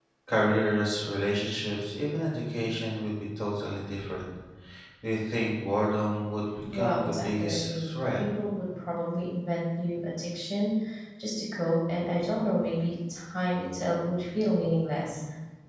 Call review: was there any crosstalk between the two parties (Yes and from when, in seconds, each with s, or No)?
Yes, from 6.7 s